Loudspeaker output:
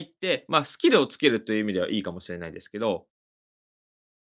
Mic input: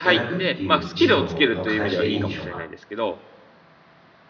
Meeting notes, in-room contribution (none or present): present